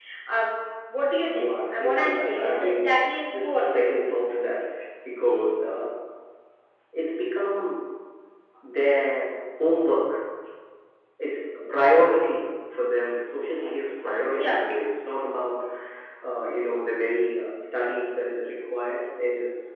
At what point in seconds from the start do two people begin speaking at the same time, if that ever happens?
1.3 s

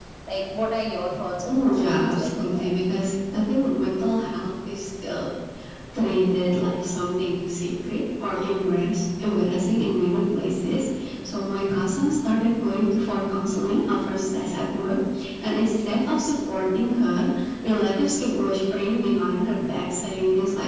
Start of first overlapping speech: 1.4 s

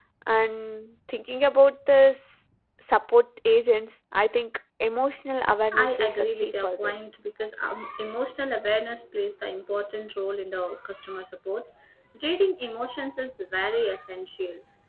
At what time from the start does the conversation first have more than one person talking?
5.7 s

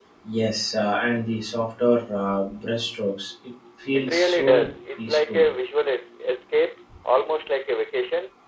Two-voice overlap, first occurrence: 3.9 s

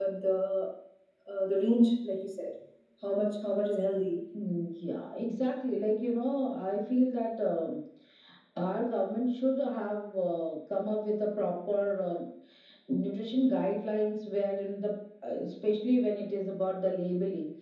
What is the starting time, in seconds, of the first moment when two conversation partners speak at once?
none

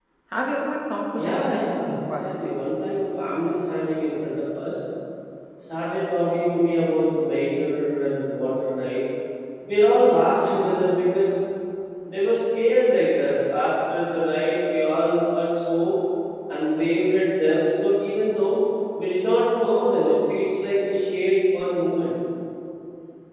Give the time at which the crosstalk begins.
1.2 s

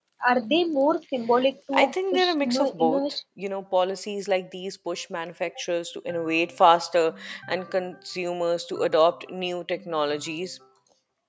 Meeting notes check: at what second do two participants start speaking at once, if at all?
1.7 s

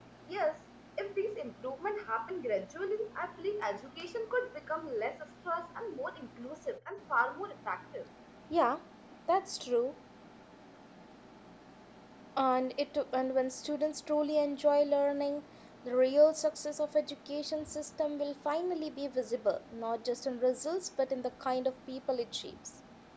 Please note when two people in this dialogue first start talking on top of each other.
none

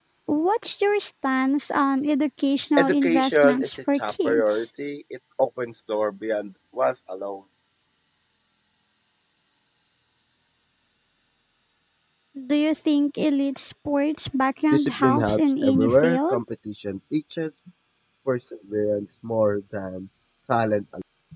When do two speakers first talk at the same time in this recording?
2.8 s

